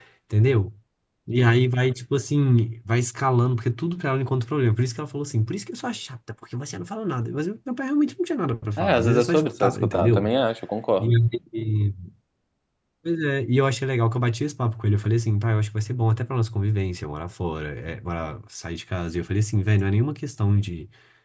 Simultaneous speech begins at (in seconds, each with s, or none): 8.8 s